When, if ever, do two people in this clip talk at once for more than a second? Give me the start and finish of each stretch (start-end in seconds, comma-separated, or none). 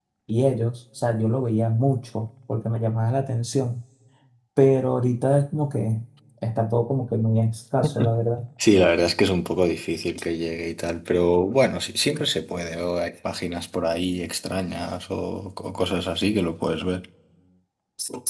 none